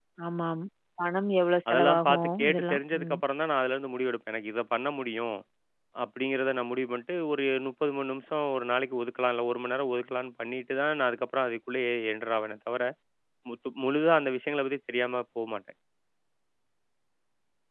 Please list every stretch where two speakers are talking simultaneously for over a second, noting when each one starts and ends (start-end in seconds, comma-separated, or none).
1.7-3.1